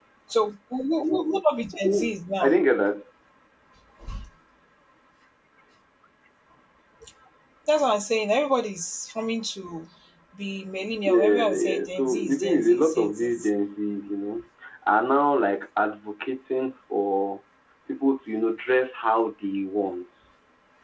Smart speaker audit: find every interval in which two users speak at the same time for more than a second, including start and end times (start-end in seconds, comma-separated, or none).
11.1-13.5